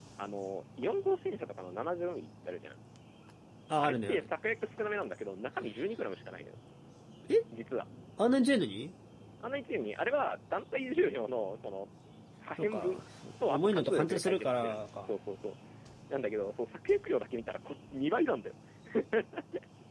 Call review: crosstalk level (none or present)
present